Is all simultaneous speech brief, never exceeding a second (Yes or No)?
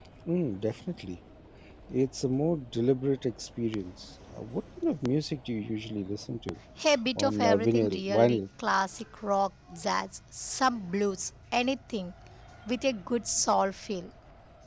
No